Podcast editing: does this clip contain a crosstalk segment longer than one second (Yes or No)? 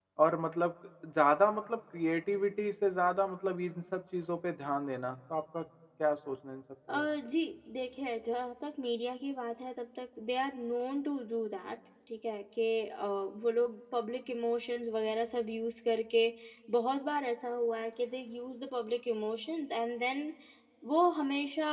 No